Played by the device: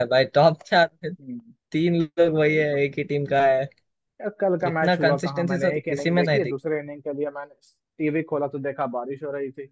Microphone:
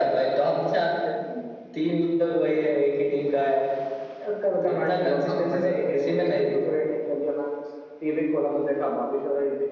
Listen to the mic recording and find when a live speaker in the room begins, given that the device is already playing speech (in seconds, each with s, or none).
none